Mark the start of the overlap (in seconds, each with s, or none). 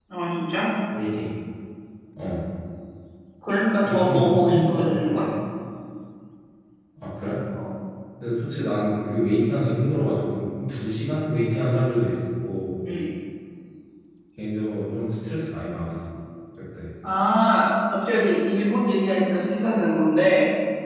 3.9 s